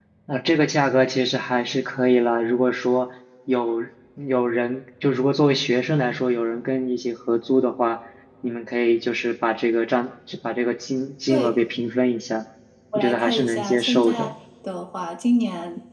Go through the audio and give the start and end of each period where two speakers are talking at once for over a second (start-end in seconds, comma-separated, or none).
13.0-14.3